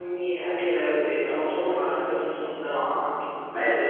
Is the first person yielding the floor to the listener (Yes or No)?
No